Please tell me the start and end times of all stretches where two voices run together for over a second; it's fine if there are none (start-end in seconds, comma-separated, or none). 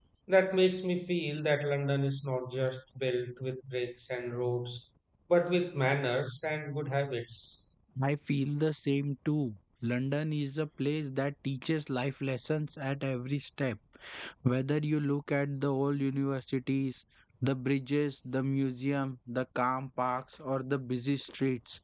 none